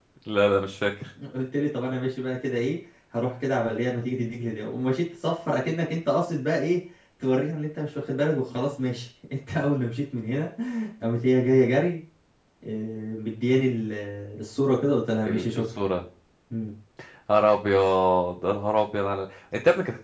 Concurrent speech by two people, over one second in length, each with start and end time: none

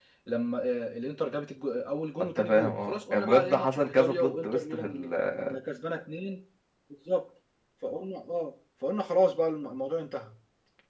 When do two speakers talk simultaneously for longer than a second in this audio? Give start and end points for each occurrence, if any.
2.2-4.8

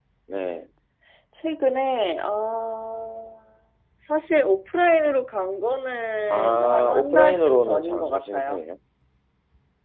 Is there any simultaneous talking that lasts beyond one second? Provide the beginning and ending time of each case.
6.3-8.6

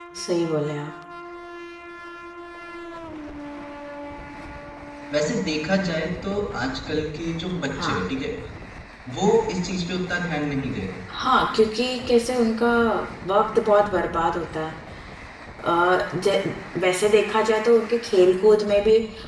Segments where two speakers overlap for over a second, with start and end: none

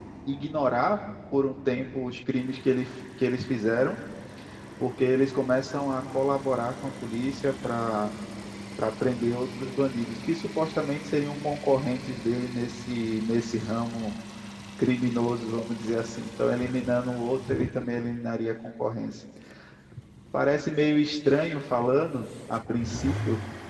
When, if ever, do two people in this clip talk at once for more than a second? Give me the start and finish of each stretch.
none

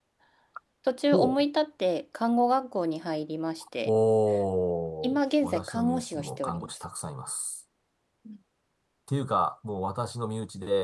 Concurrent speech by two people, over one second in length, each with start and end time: 5.0-6.9

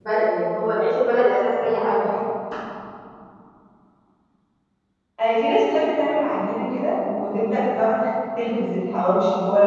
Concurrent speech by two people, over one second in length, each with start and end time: none

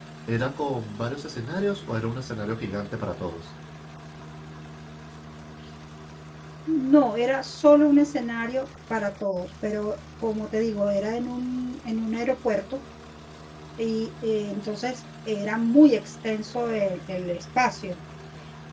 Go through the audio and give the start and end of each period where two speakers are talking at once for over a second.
none

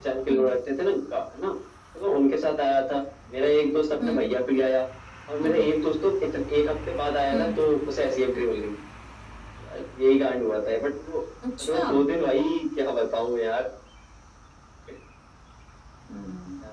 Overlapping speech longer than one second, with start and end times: none

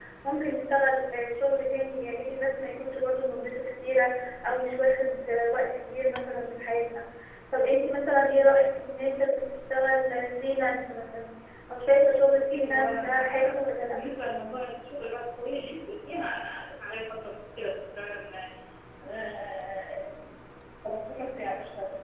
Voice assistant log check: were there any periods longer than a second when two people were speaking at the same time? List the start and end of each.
12.4-13.9

